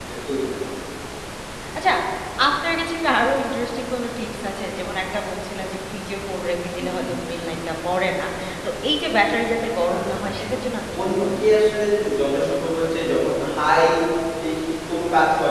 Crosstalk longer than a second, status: none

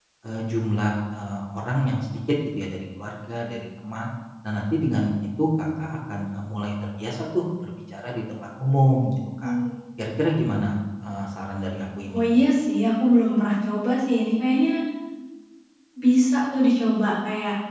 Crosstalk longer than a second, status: none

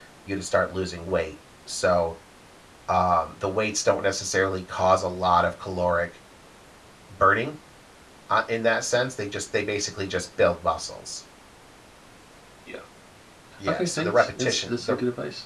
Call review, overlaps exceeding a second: present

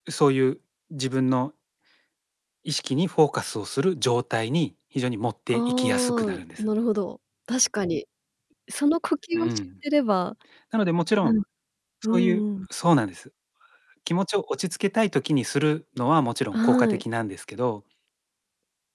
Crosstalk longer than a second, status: present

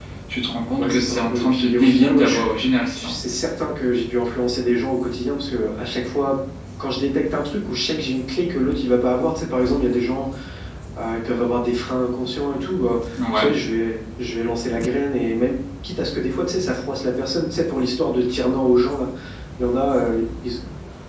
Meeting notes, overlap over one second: present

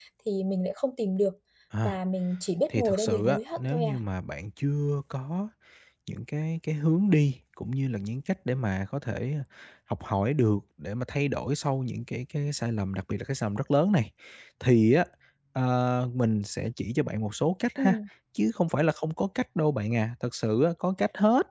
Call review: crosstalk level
present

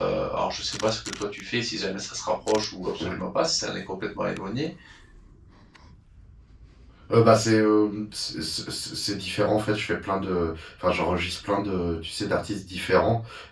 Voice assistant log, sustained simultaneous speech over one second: none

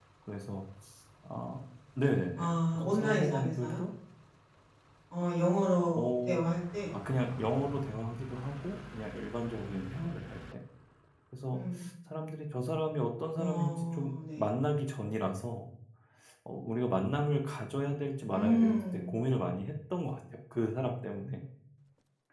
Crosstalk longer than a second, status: present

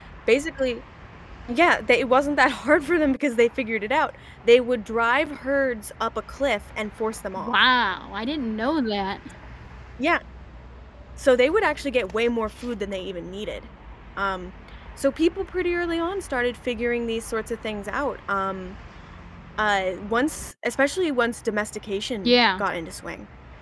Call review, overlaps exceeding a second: none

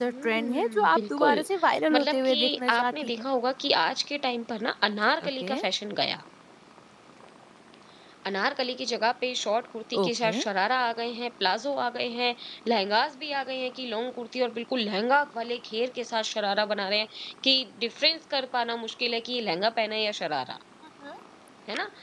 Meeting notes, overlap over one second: present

